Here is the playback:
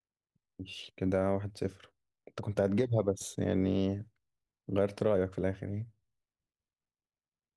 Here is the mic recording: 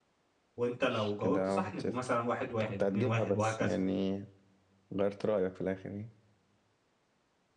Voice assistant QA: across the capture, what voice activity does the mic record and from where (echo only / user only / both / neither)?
both